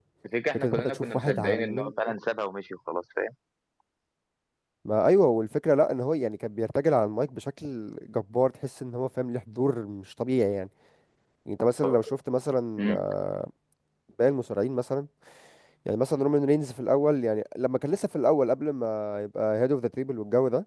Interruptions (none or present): present